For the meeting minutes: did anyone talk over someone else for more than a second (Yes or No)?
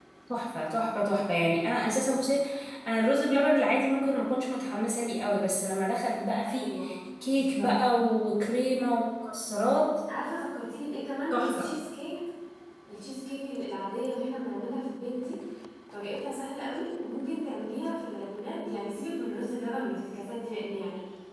No